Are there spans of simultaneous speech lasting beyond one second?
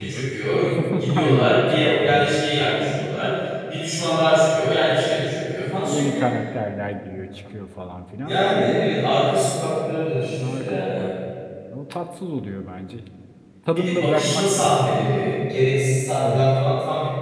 Yes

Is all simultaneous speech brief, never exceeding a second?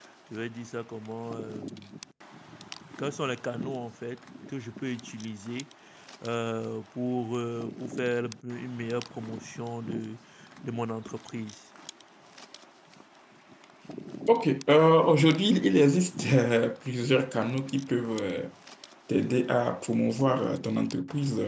Yes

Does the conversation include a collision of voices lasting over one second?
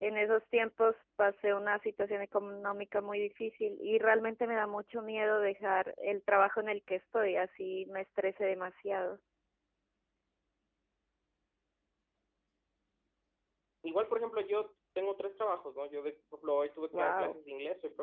No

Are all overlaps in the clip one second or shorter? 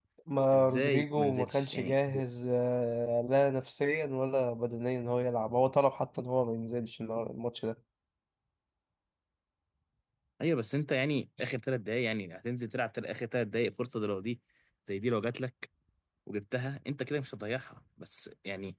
No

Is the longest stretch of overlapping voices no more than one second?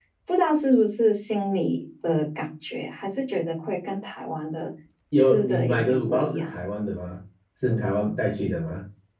No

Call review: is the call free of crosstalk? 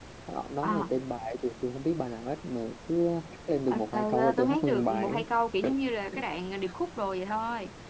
No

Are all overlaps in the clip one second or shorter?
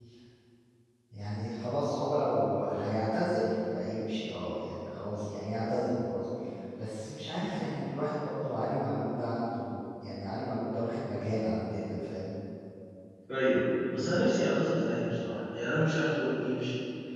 Yes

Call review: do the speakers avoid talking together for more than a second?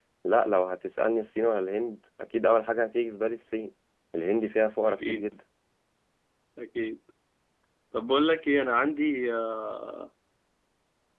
Yes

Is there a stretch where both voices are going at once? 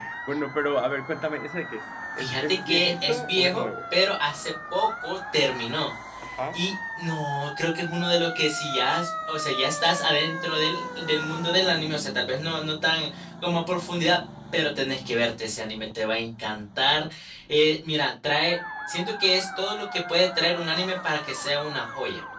Yes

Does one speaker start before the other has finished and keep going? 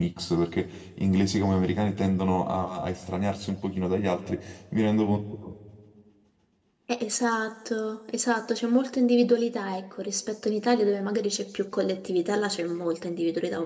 No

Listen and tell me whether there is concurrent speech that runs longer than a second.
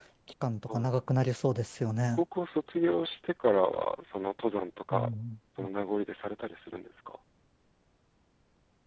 No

